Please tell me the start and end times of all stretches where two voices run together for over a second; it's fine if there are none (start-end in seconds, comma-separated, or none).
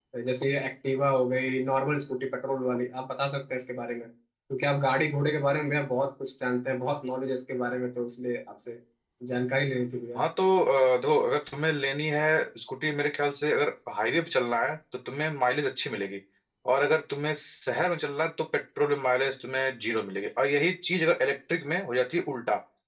none